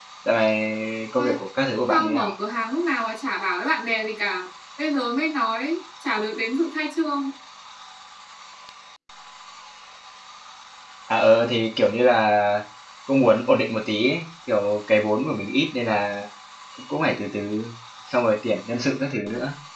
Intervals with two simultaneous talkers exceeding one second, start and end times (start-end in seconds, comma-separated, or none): none